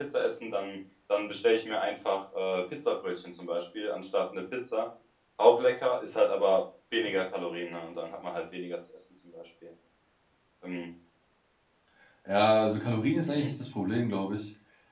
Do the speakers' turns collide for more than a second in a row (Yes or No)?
No